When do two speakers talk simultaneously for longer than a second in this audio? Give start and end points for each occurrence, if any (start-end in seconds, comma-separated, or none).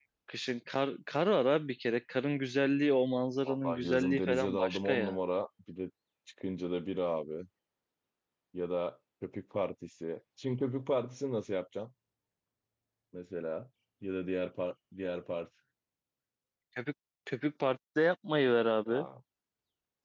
3.4-5.2